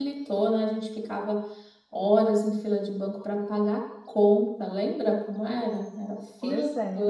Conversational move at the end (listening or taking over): listening